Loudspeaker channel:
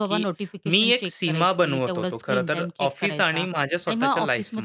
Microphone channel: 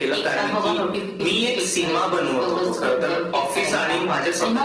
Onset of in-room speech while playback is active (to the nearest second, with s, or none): none